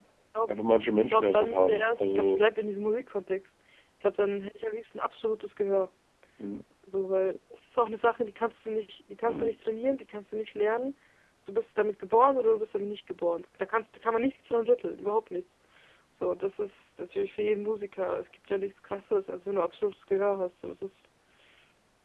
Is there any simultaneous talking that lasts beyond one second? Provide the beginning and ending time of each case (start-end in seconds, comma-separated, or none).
1.0-2.4